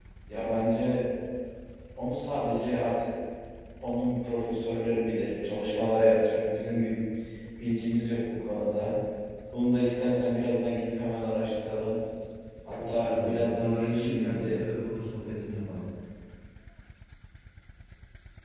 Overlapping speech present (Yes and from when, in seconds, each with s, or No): Yes, from 12.7 s